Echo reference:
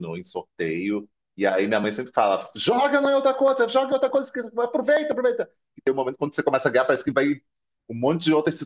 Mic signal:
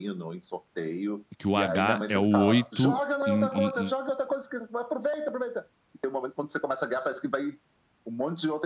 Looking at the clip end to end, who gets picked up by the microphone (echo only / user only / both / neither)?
both